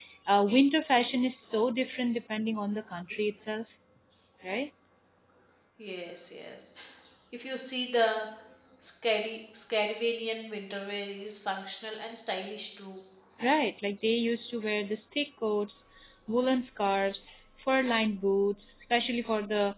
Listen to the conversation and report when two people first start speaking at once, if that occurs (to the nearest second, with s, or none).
none